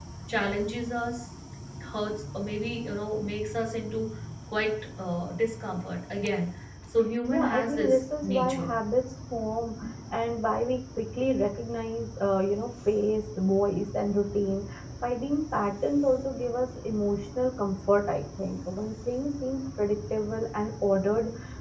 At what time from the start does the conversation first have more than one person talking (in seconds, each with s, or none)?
7.3 s